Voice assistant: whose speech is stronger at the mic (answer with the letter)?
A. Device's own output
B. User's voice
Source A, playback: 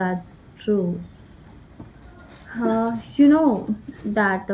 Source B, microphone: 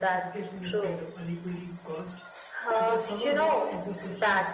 A